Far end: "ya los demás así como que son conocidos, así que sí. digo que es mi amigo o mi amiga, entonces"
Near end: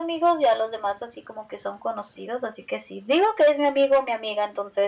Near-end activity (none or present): none